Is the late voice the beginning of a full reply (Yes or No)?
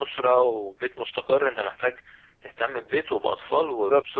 No